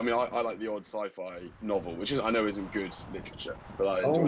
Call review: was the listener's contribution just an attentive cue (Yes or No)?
No